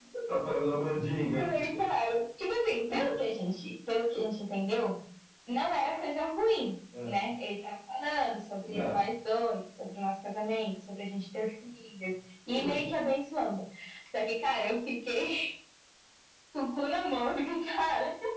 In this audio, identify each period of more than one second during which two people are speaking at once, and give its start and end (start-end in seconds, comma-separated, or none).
none